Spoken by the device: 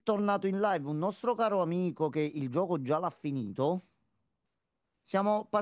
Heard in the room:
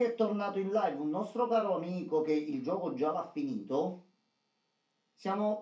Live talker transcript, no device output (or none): none